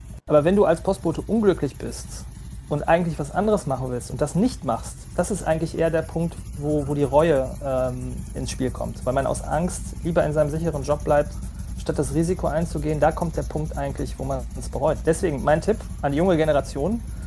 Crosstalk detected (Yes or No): No